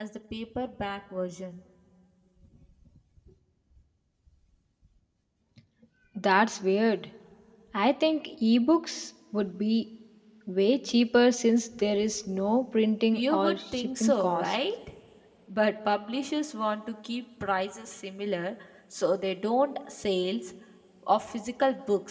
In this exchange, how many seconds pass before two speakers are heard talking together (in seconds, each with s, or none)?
13.1 s